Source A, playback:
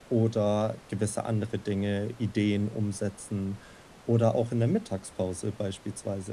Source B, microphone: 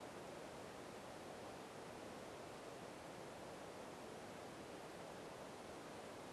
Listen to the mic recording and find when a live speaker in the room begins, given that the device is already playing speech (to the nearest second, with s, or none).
none